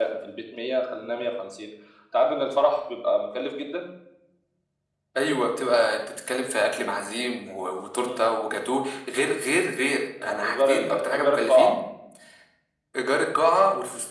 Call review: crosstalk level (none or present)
present